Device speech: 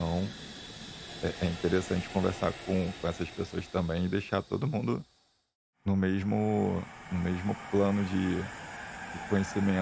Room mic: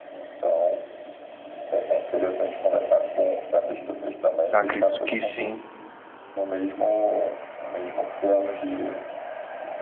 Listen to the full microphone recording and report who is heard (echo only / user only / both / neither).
both